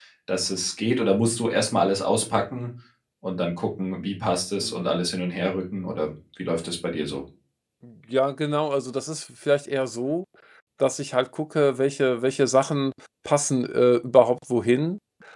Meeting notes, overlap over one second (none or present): none